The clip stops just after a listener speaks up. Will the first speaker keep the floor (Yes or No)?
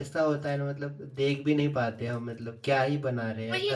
No